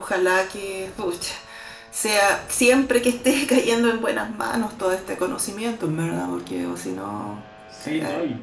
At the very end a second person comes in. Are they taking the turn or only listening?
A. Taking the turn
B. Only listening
A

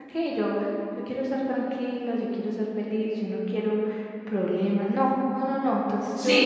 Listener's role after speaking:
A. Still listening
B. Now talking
B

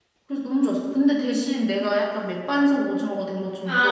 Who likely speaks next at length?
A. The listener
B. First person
A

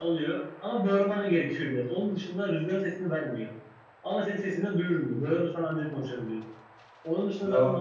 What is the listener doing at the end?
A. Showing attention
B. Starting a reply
A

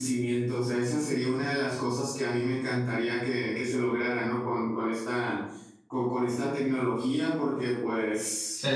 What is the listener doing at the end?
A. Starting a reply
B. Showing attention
A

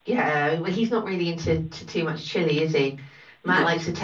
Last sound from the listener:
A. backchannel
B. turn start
A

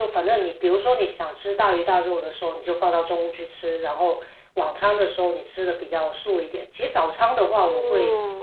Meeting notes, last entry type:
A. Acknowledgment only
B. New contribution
A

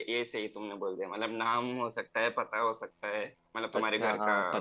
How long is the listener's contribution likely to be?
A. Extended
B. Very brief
A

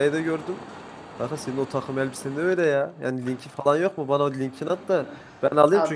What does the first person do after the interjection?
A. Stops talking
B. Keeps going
B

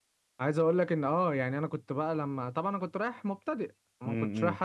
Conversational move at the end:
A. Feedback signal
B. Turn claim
A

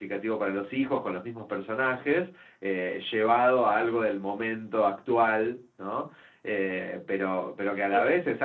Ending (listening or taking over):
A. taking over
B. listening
B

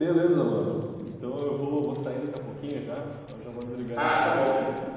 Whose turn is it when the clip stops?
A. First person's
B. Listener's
B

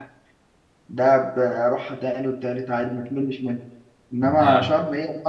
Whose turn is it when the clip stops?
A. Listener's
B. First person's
B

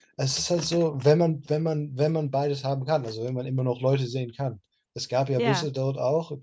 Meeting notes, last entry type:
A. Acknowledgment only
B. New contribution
A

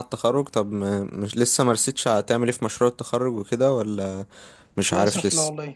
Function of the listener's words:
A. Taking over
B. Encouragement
A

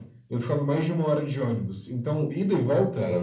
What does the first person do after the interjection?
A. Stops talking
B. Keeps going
B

